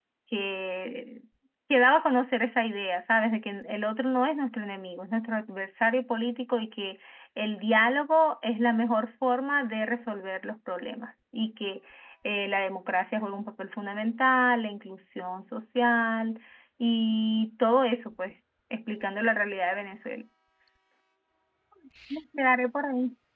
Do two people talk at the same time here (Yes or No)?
No